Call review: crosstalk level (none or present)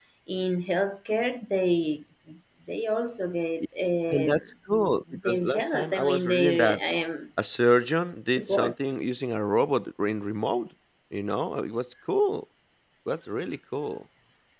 present